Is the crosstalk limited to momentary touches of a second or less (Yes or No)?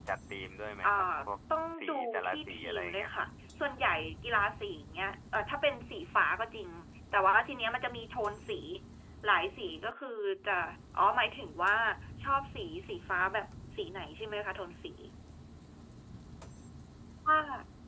No